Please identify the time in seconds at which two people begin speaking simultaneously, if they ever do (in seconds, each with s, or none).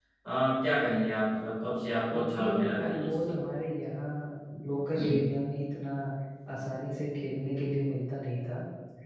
2.1 s